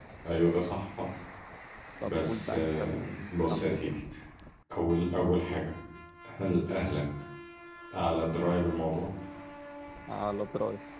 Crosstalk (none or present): present